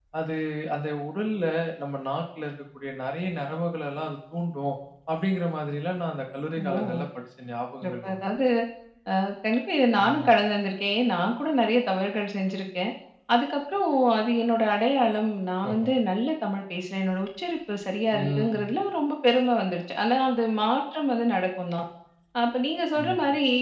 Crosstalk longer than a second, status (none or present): none